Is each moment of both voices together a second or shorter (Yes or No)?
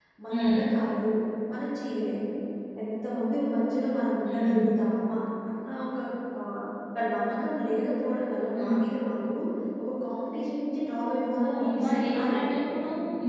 No